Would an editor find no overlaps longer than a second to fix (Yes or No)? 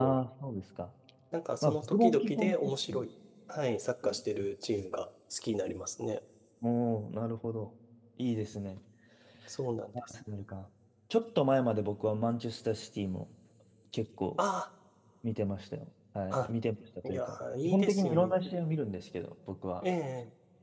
No